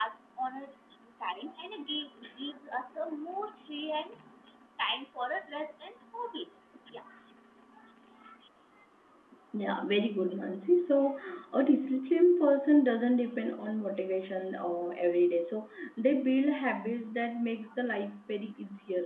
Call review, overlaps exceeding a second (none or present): none